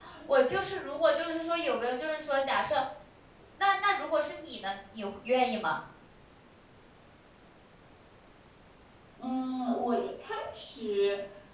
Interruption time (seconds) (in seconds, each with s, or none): none